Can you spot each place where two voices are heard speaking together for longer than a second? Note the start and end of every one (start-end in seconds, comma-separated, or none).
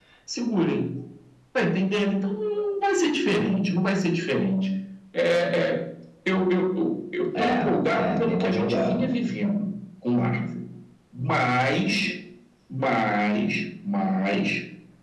7.4-9.0